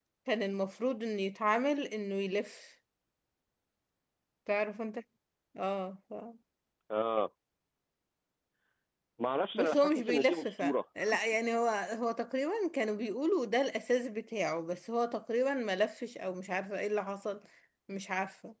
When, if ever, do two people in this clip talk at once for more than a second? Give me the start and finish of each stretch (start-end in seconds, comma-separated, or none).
9.5-10.8